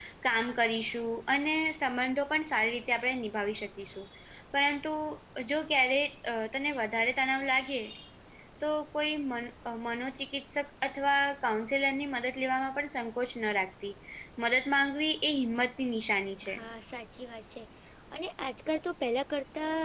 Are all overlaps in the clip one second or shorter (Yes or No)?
Yes